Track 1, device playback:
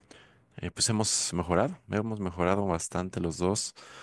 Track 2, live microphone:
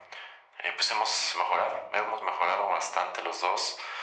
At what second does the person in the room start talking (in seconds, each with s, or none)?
none